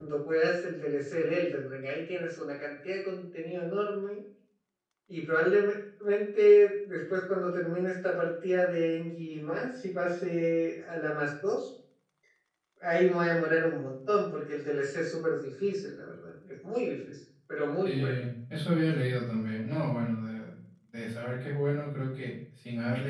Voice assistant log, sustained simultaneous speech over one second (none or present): none